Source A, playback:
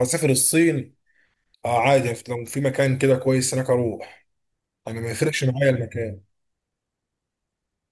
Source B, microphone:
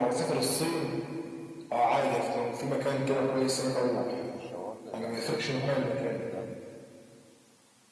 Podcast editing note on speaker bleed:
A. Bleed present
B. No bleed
A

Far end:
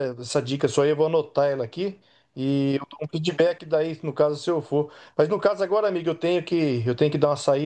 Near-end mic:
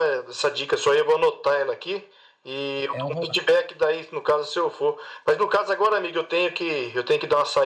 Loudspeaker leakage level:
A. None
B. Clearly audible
B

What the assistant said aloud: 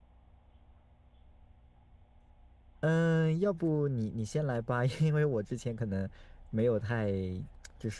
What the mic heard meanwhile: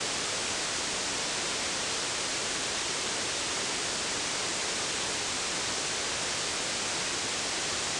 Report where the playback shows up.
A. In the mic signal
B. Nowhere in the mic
B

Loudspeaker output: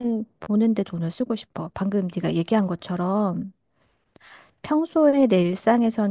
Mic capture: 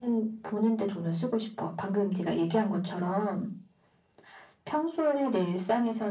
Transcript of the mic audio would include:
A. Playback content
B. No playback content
A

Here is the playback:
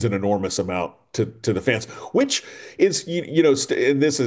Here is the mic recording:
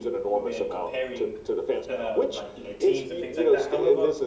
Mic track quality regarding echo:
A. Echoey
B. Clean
A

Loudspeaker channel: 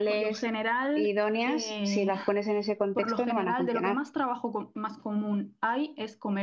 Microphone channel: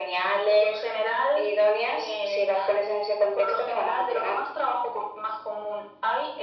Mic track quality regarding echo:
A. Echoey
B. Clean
A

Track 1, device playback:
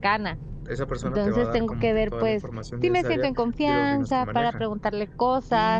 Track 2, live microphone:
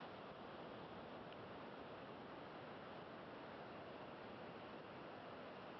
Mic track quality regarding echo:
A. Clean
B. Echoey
A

